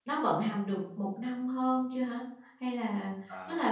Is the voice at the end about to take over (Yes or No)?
No